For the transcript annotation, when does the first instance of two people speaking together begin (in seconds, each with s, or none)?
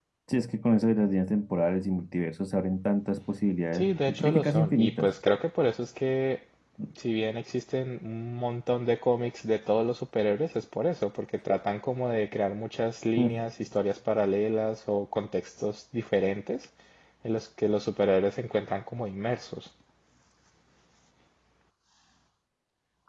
3.7 s